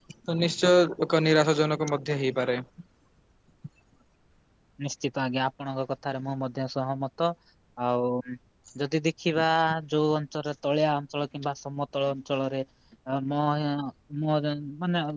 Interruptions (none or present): none